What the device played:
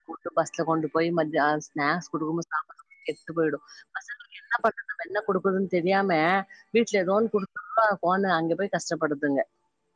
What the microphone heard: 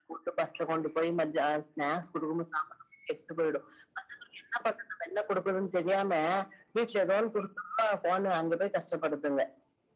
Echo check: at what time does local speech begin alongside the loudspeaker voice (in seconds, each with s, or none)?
none